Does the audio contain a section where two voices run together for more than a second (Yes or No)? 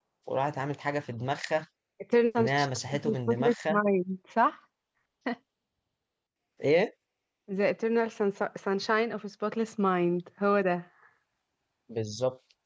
Yes